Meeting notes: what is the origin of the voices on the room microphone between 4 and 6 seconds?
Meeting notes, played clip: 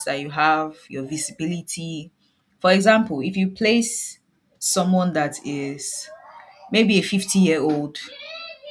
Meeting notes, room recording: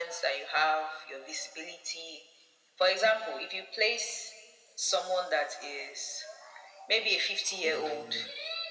echo only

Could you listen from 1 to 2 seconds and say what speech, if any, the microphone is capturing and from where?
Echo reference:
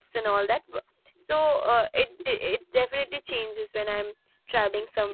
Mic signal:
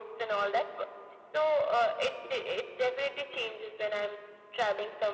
echo only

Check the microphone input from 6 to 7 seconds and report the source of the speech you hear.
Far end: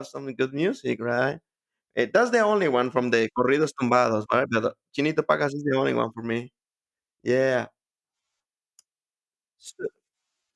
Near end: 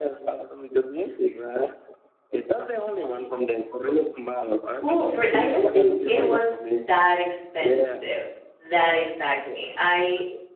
both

